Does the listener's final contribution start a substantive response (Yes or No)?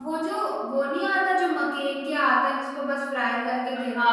Yes